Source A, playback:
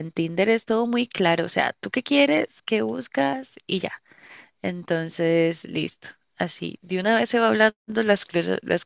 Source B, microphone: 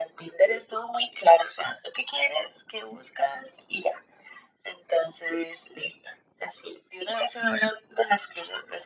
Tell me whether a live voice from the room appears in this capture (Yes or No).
No